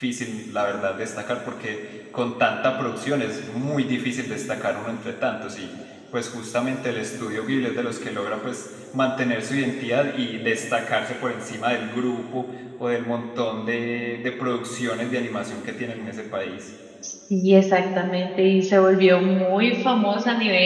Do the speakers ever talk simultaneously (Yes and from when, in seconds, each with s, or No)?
No